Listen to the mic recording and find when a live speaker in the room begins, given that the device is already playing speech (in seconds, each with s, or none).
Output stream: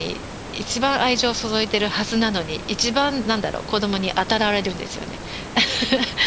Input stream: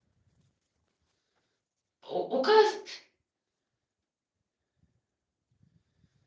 2.0 s